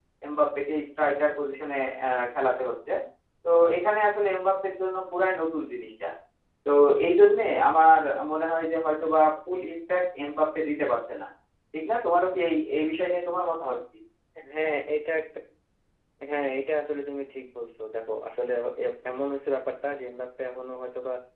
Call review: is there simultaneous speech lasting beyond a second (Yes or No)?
No